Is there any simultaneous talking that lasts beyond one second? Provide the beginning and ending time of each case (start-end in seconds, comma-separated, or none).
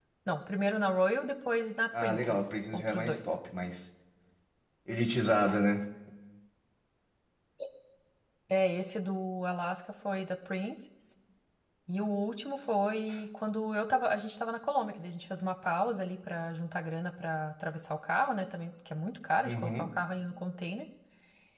2.0-3.2